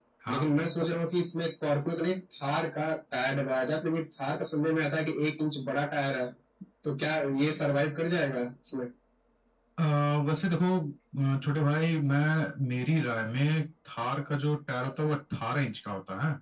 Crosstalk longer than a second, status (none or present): none